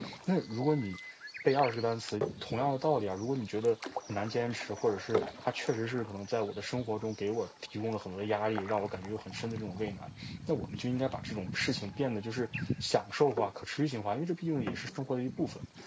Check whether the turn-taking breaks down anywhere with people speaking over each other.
No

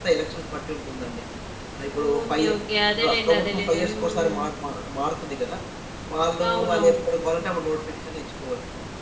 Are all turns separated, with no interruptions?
No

